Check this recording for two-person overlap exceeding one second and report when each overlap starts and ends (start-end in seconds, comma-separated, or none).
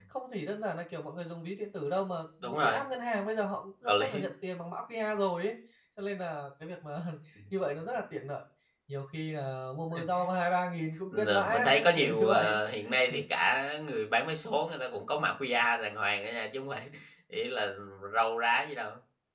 11.1-12.6